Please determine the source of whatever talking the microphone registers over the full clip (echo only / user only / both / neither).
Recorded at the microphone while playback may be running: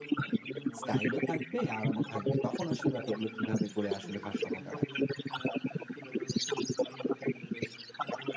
both